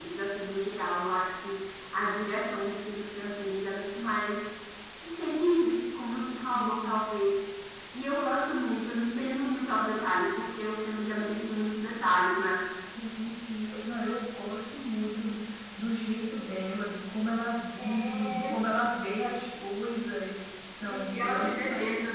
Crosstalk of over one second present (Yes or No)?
Yes